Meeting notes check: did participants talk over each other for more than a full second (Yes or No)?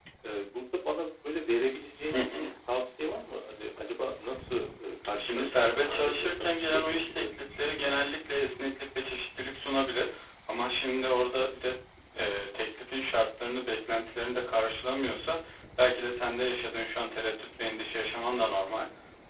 Yes